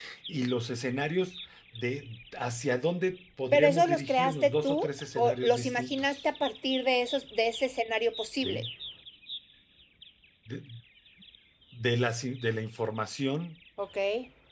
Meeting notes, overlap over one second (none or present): present